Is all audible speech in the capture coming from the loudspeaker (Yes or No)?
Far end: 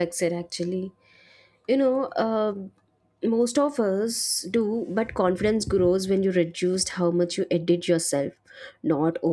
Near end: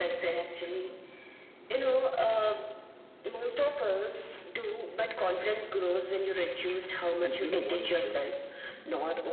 No